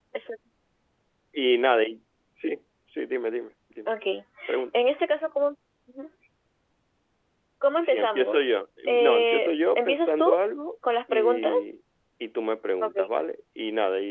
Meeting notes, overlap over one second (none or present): present